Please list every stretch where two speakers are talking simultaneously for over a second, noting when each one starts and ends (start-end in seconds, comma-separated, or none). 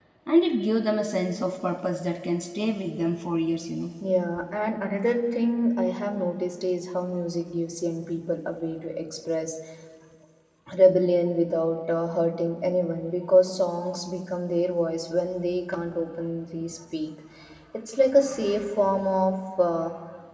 none